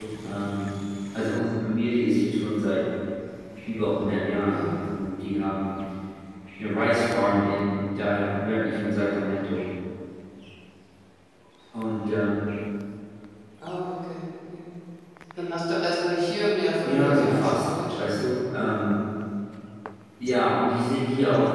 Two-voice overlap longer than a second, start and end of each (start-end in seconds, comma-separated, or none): 16.8-18.2